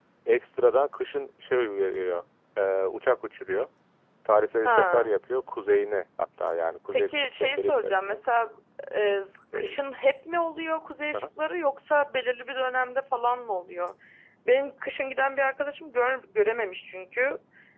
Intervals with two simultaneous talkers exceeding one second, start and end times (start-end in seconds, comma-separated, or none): 6.9-8.2